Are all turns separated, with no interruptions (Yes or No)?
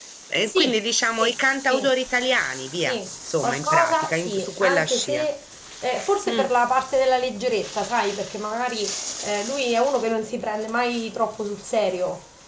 No